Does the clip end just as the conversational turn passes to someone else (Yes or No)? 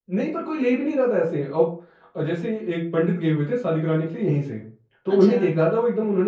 No